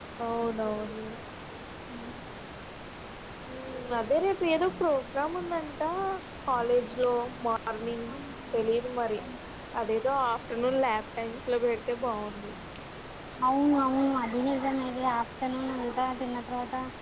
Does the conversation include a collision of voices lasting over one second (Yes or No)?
No